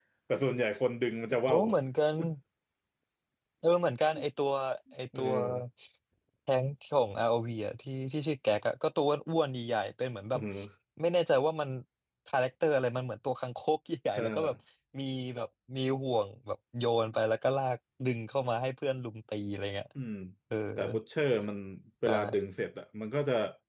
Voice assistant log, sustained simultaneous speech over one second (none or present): none